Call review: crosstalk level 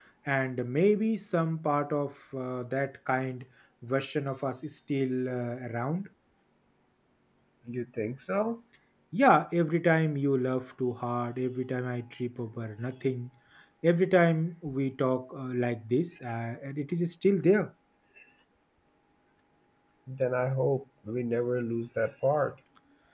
none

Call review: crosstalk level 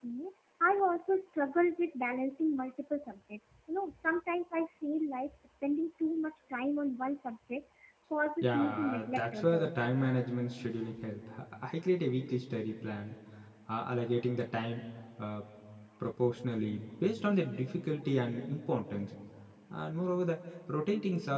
present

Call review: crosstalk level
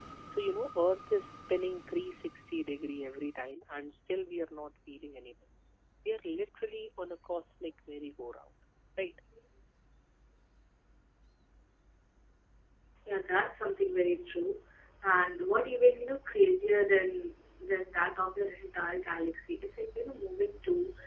none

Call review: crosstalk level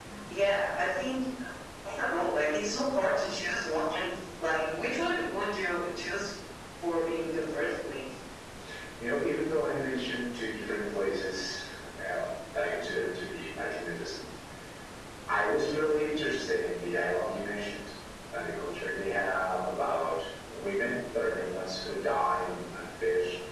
none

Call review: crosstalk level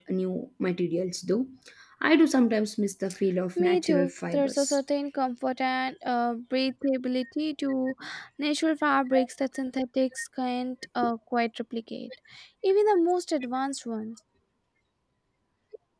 present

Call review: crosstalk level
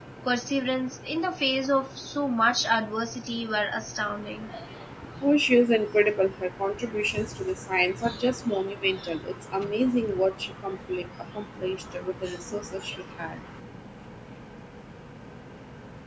none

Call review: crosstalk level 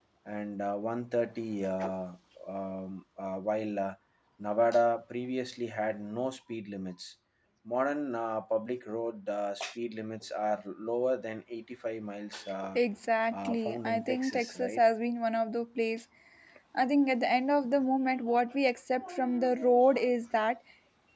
present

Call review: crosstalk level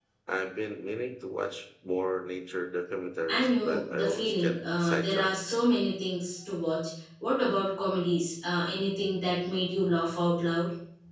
present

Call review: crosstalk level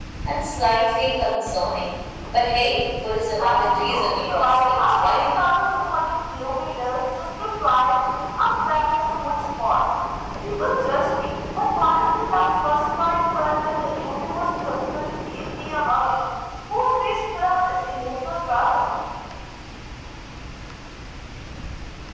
present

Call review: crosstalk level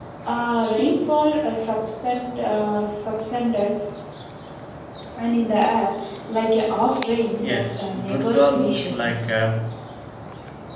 present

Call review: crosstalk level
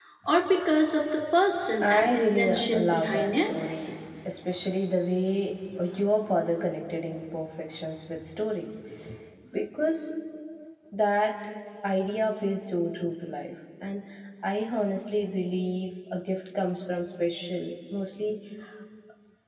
present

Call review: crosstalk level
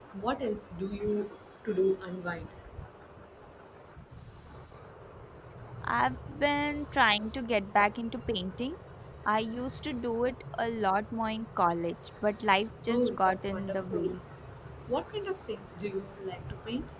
present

